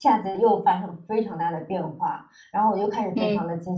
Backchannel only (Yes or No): Yes